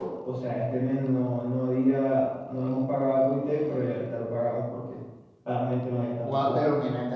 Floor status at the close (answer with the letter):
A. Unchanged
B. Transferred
B